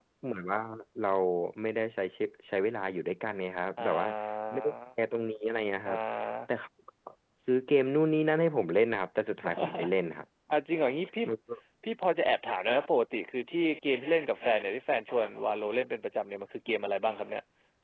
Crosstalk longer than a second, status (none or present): none